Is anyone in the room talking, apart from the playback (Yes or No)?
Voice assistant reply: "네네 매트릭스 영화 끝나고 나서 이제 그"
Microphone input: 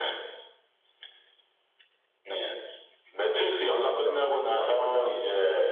Yes